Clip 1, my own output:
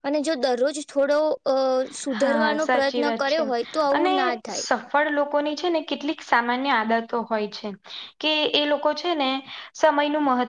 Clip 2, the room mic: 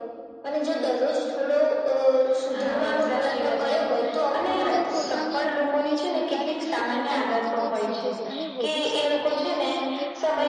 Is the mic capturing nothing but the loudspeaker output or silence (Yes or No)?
No